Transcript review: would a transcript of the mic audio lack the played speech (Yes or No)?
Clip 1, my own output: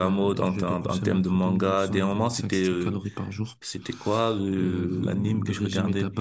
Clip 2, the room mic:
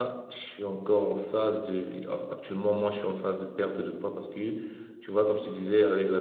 Yes